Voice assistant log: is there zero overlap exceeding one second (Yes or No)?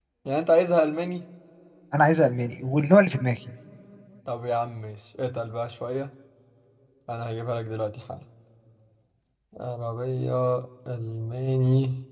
Yes